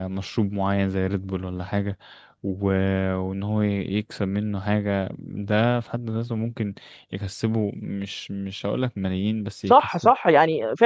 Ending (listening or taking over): taking over